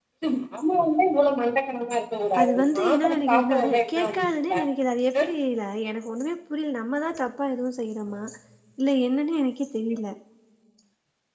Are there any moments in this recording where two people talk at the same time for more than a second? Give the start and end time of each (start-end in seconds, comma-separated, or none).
2.4-4.5